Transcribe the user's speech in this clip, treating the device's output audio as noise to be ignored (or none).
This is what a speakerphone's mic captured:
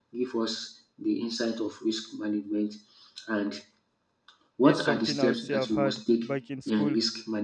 This is something I would say I've had back in school